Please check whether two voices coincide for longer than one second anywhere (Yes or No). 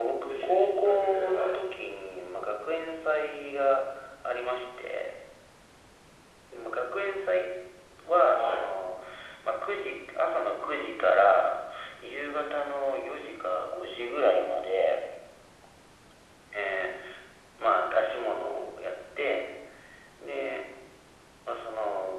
Yes